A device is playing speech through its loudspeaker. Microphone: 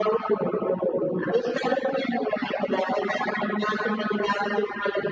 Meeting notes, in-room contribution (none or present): none